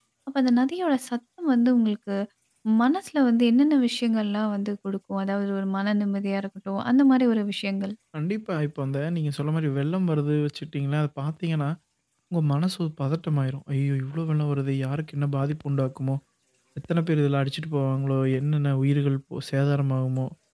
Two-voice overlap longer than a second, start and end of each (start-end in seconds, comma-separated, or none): none